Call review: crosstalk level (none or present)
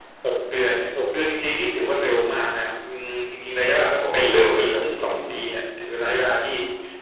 present